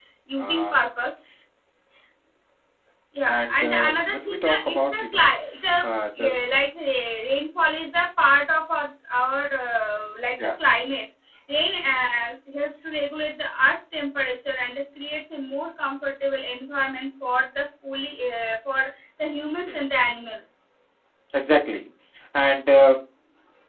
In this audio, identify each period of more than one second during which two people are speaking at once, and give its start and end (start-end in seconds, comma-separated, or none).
3.2-5.3